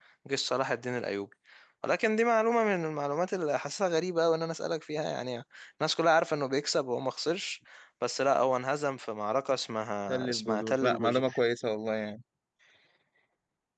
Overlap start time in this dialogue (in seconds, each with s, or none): 10.1 s